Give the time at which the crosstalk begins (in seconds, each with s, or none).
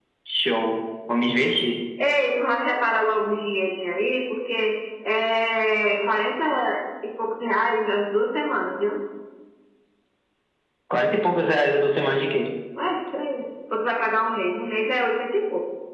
none